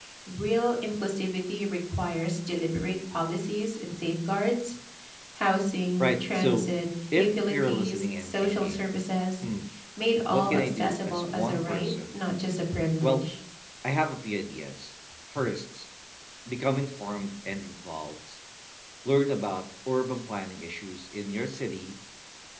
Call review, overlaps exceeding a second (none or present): present